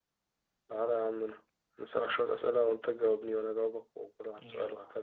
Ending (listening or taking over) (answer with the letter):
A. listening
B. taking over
B